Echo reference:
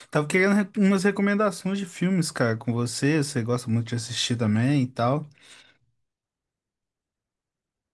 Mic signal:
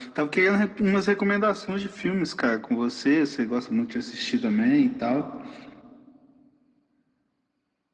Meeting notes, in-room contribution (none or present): none